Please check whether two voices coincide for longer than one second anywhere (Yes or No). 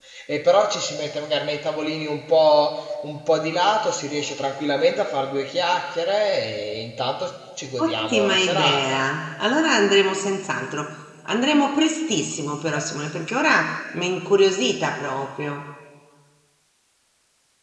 Yes